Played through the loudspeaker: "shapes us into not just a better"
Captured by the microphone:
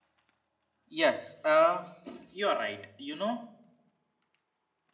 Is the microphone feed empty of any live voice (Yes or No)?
No